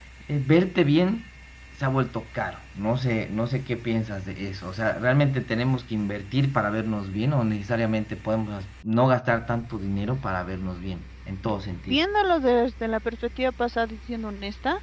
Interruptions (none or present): none